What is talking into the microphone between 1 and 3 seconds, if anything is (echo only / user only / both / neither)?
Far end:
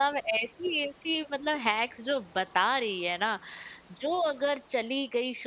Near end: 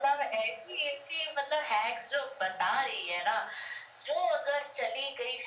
echo only